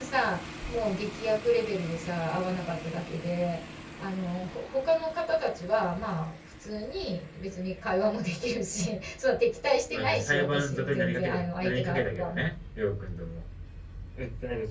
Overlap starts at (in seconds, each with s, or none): 9.9 s